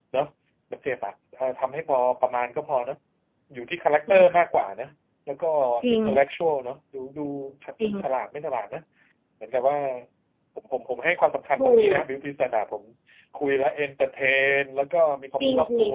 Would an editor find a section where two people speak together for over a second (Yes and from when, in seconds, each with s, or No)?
No